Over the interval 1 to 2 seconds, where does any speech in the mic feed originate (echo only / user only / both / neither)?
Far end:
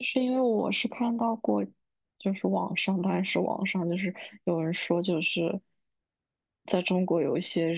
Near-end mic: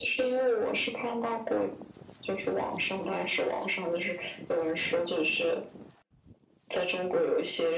echo only